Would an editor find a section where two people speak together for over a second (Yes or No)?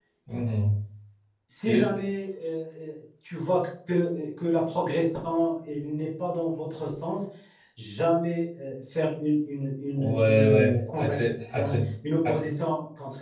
Yes